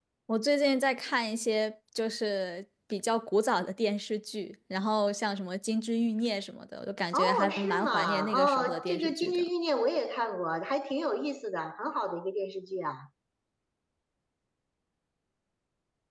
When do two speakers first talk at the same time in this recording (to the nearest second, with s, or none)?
7 s